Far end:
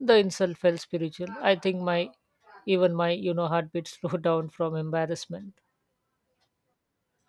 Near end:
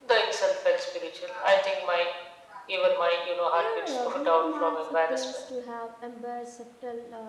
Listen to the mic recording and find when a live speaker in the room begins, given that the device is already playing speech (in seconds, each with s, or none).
3.5 s